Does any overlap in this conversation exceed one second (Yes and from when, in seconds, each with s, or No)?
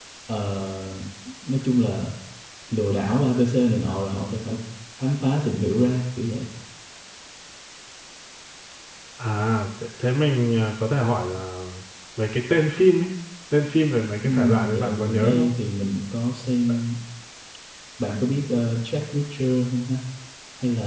Yes, from 14.2 s